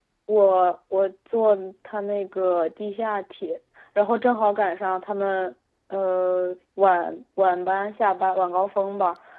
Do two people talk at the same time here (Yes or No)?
No